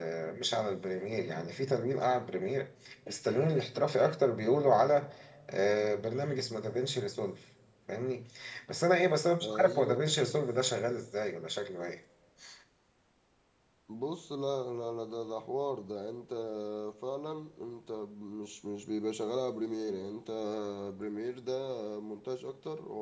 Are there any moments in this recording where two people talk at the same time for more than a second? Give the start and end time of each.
none

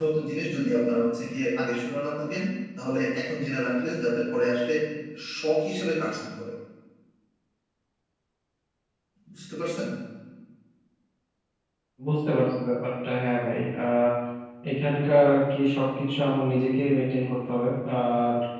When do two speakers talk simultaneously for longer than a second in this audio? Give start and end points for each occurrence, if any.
none

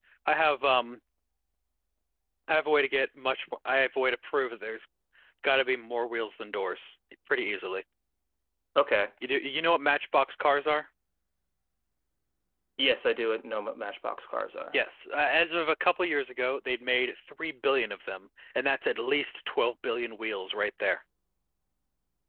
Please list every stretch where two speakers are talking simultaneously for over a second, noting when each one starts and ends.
none

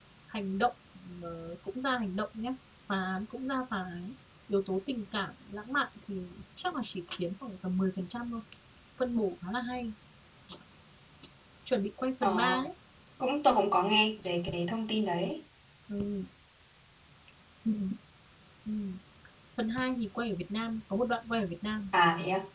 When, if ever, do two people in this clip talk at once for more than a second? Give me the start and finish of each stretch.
none

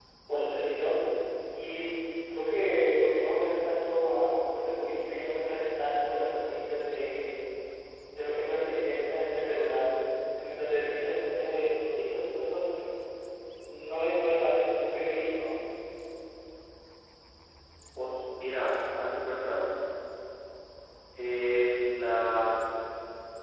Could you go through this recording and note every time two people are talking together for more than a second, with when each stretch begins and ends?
none

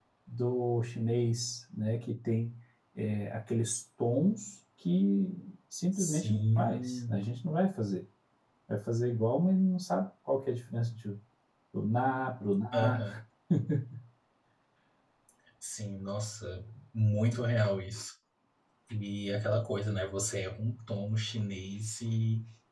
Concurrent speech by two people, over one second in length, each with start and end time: 6.0-7.2

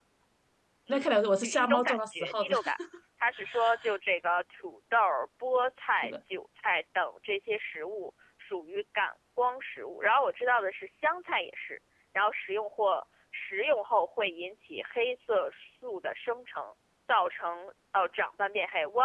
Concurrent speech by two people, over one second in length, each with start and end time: 0.9-2.5

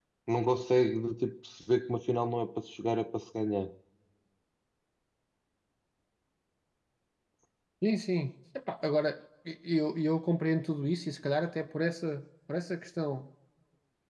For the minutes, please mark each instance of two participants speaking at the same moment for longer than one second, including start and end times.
none

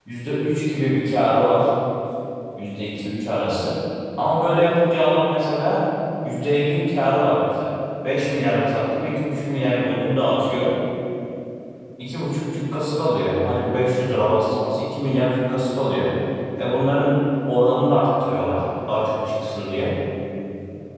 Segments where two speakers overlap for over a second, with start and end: none

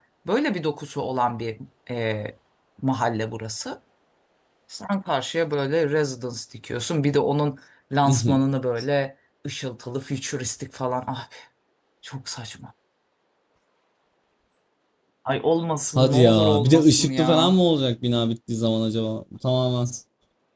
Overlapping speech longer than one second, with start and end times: 16.0-17.6

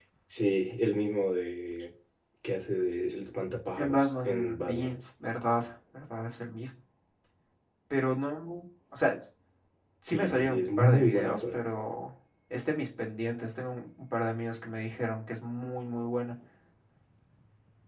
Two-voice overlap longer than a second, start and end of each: 3.8-5.0, 10.1-11.6

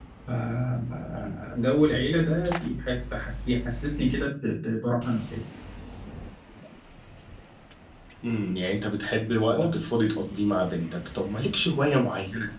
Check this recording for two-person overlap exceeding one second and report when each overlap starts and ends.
none

